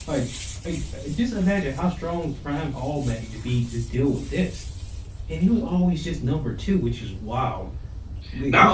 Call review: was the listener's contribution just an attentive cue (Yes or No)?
No